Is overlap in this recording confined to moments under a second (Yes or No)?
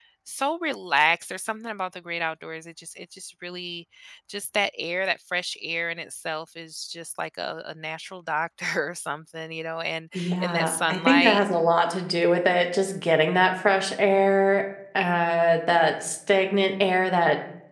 No